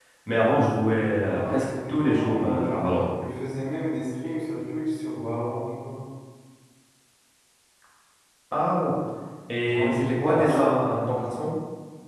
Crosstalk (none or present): present